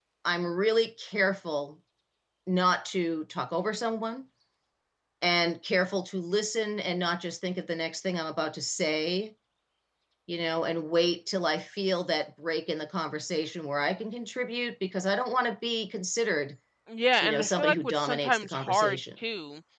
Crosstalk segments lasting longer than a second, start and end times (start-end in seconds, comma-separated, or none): 17.2-19.0